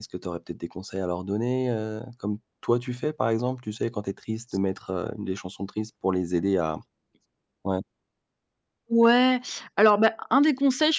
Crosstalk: none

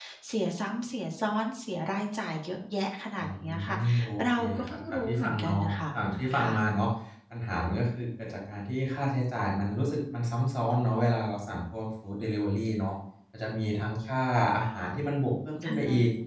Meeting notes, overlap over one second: present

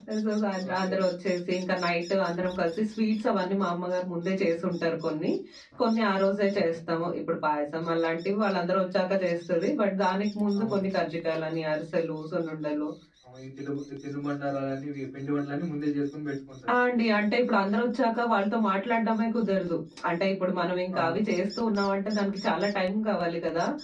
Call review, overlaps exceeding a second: none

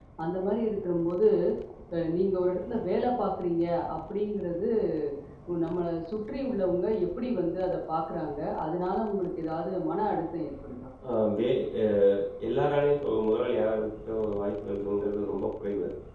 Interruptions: none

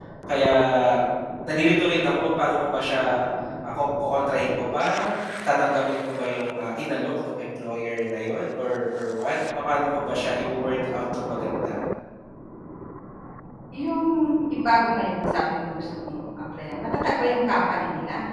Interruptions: none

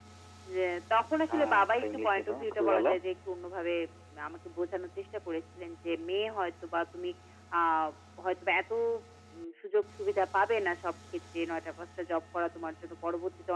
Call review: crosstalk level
present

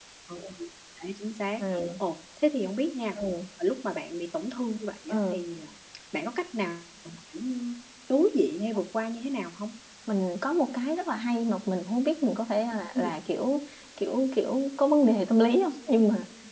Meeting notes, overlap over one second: none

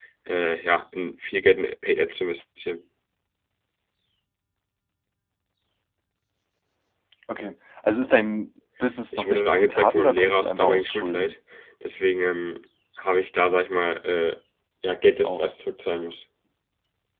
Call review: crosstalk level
present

